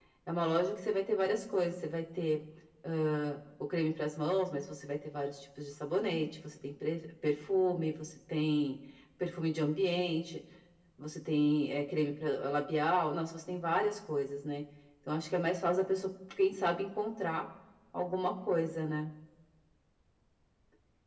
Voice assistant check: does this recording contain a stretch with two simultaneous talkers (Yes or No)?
No